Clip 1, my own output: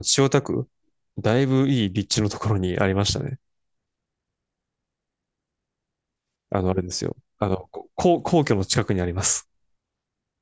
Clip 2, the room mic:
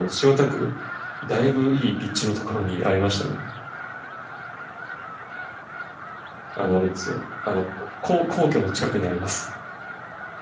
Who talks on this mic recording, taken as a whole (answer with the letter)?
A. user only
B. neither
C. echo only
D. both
C